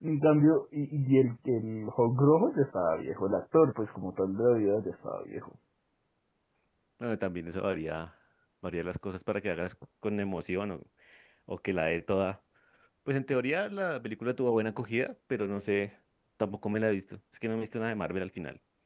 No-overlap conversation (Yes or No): Yes